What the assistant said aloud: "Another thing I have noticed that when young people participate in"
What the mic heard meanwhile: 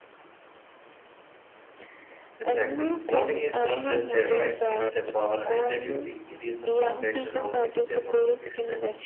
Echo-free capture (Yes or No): No